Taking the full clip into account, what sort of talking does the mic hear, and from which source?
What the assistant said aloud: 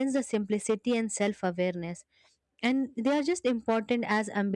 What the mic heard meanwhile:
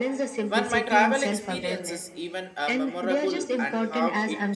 both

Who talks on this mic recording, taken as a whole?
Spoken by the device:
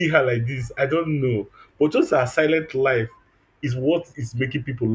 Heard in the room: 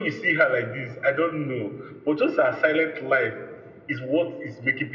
echo only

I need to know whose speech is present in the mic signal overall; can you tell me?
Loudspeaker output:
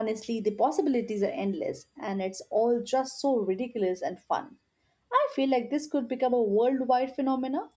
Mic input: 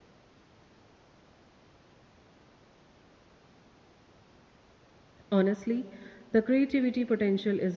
user only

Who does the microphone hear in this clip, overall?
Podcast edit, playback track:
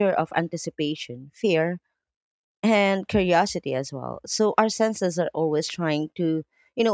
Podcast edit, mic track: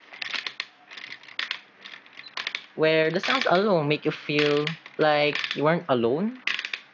user only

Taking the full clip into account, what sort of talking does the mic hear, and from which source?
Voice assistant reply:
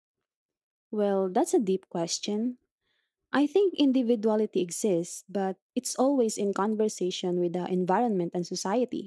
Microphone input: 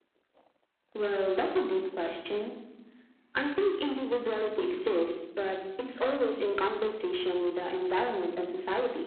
echo only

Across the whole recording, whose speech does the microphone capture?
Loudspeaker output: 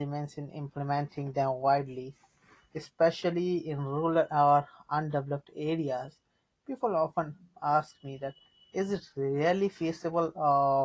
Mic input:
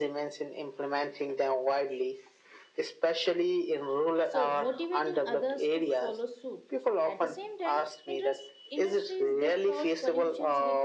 both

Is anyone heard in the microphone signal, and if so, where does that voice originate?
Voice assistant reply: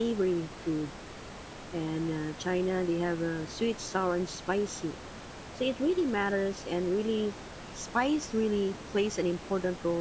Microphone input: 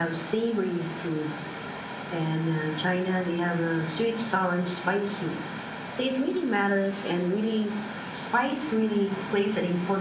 echo only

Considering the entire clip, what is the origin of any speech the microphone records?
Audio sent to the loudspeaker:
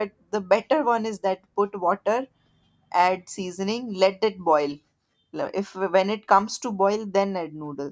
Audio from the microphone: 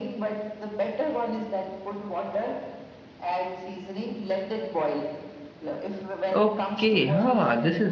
both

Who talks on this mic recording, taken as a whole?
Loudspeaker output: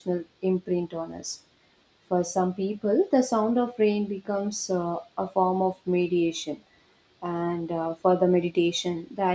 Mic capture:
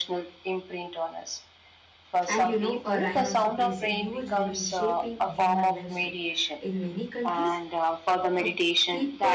both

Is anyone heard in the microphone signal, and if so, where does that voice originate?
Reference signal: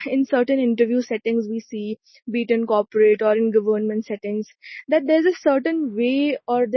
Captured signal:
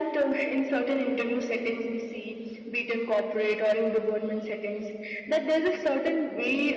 echo only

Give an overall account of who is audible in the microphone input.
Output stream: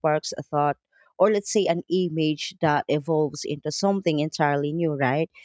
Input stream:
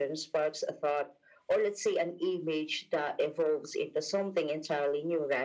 echo only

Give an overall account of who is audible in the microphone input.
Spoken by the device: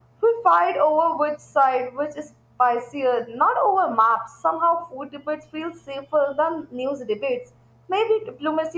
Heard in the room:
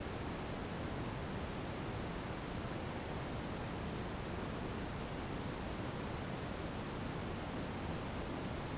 neither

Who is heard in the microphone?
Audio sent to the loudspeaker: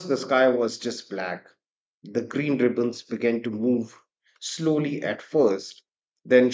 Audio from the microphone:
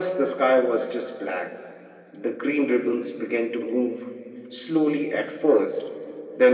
echo only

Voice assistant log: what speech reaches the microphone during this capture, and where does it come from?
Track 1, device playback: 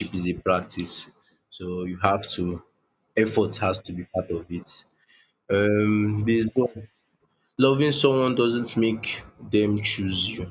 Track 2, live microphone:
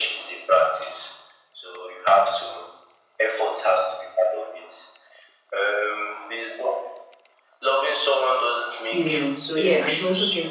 both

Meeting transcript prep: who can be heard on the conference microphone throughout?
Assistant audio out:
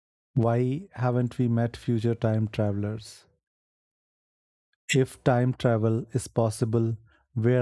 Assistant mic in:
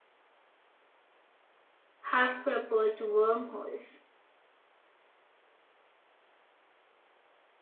user only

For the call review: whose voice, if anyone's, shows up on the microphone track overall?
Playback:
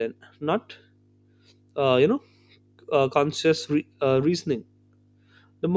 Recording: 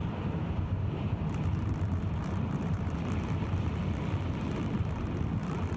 neither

